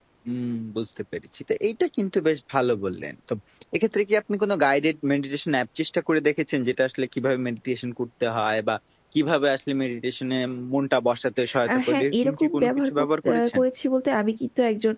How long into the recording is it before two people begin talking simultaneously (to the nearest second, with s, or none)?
12 s